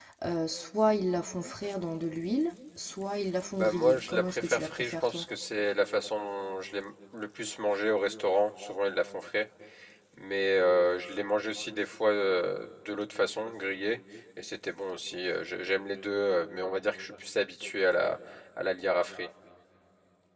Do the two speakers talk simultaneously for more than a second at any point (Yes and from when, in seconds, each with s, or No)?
Yes, from 3.5 s